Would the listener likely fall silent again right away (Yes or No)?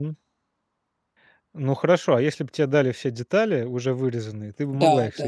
No